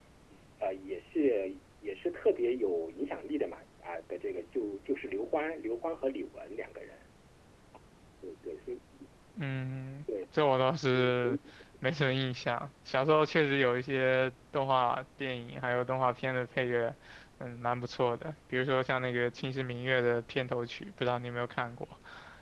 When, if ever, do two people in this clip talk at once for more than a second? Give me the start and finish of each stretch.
none

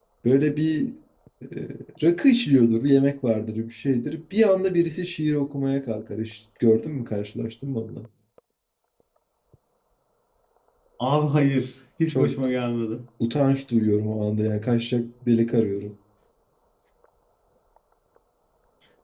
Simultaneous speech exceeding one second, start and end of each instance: none

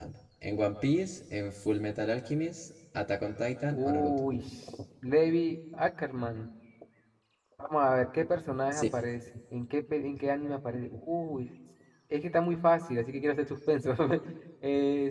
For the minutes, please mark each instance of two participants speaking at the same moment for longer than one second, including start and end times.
none

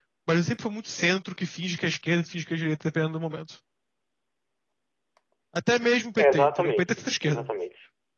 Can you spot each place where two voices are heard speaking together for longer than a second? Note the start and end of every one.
6.2-7.5

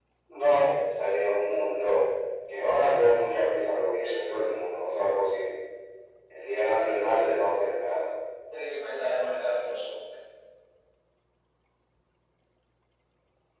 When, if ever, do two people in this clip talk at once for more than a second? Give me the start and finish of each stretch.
none

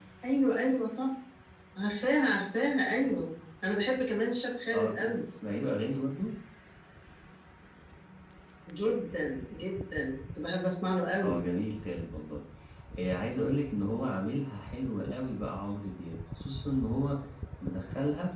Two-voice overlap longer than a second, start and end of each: none

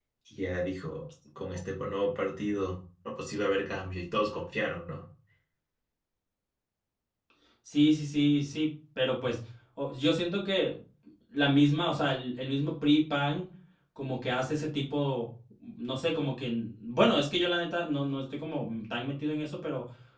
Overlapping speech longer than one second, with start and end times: none

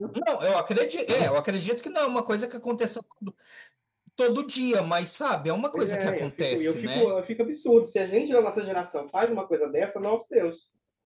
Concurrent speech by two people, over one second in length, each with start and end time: 5.7-7.1

